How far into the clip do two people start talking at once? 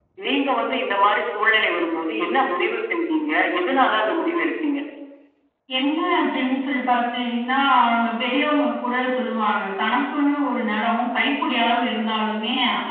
none

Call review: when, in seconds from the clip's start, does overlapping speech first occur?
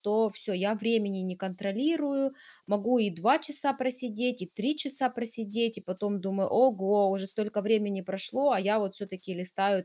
none

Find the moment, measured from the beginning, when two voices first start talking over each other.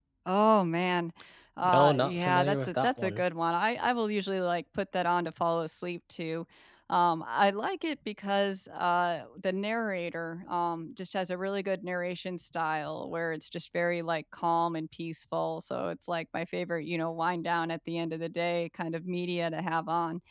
1.6 s

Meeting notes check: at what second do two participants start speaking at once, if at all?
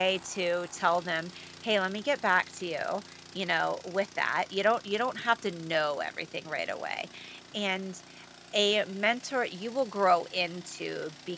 none

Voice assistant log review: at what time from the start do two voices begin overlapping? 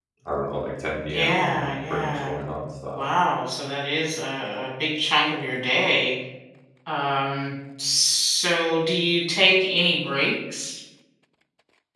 1.1 s

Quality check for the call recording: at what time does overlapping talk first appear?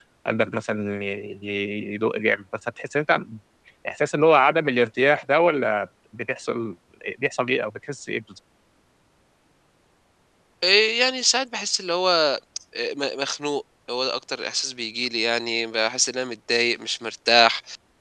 none

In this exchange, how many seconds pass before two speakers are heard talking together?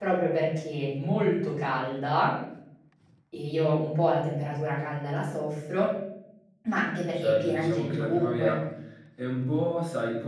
7.2 s

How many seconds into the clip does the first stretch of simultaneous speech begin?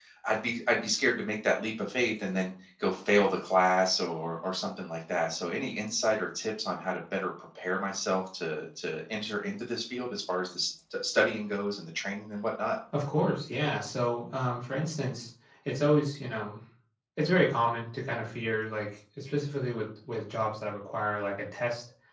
none

